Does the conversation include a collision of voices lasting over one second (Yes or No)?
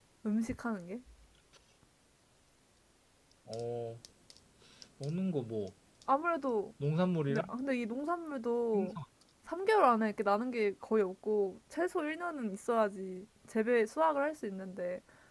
No